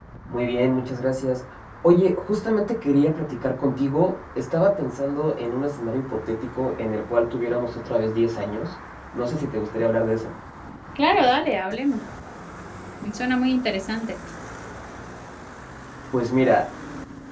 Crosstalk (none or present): none